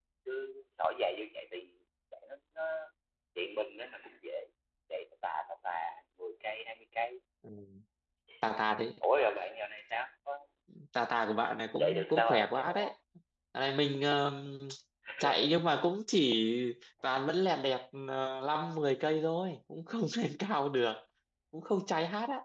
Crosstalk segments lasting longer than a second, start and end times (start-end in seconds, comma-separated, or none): 11.4-12.9